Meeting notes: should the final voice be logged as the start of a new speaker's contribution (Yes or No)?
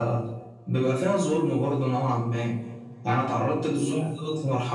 No